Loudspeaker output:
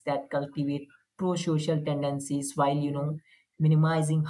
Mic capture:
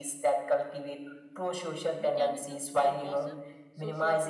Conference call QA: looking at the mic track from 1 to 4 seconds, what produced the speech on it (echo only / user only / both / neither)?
both